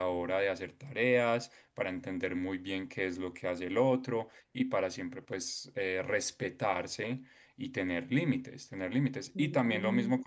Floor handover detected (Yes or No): No